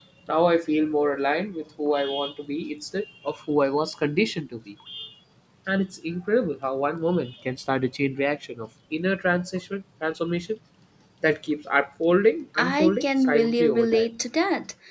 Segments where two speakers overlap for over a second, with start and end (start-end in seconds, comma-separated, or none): 12.6-14.1